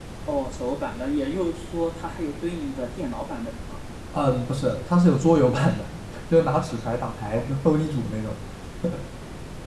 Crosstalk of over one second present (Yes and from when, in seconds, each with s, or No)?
No